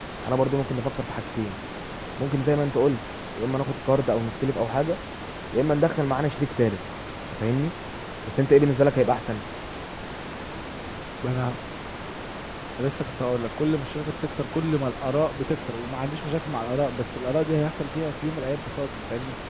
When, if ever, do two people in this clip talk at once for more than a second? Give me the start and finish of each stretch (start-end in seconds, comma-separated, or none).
none